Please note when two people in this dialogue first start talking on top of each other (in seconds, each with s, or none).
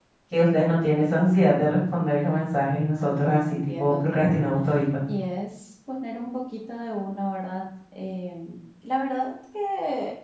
3.0 s